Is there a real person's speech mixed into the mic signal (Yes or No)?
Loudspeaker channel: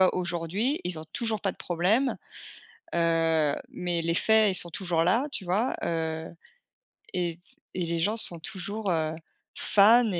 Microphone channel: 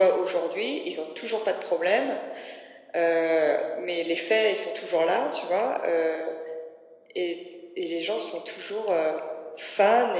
No